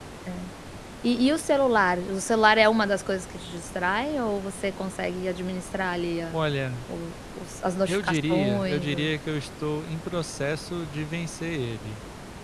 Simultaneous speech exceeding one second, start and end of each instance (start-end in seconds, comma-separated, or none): 7.9-9.1